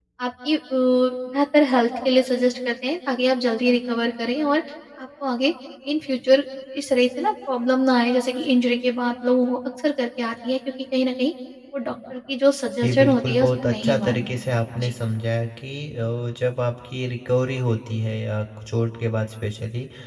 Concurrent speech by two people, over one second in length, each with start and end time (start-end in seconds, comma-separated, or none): 12.8-14.2